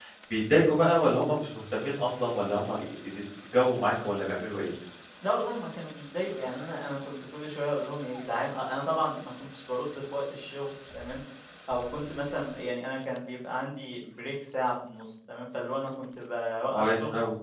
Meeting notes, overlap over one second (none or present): none